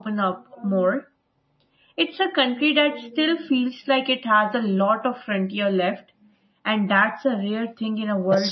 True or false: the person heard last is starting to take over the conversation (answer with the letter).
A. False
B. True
B